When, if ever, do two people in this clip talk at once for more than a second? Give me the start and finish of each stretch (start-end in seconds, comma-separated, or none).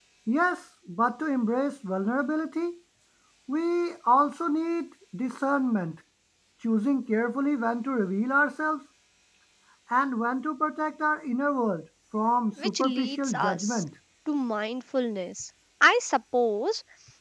12.6-13.8